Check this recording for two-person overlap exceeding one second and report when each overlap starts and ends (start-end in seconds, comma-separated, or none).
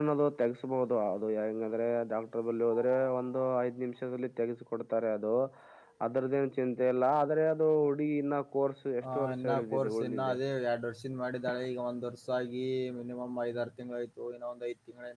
9.1-10.3